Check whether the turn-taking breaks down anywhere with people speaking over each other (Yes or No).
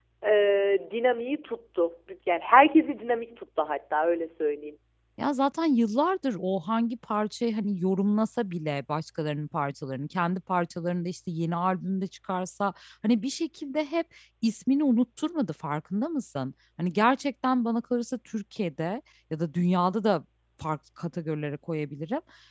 No